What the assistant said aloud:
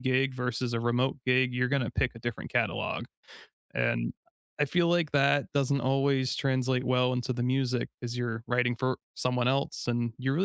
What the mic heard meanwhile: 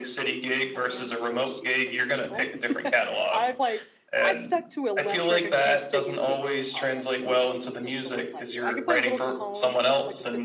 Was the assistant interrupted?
Yes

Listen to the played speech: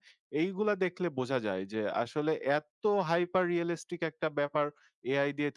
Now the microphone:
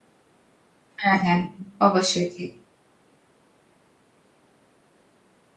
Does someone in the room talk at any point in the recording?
Yes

